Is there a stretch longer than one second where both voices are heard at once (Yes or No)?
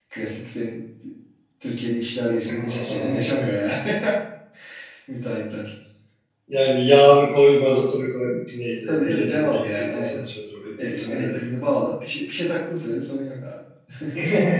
Yes